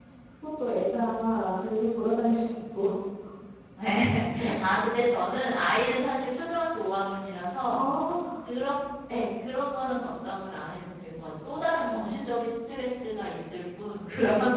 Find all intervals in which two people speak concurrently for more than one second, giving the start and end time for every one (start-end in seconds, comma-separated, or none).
none